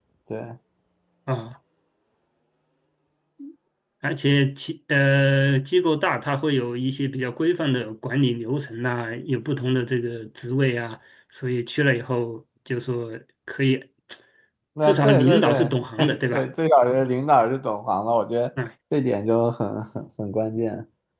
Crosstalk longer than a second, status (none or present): present